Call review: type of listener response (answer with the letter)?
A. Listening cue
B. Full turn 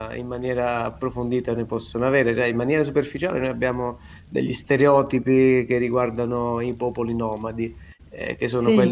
A